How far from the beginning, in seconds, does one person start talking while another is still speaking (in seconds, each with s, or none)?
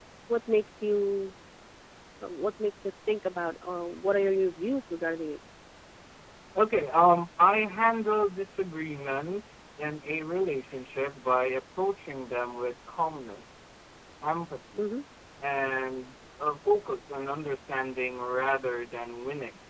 none